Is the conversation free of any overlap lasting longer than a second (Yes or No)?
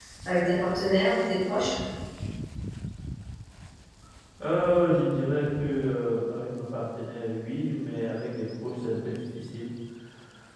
Yes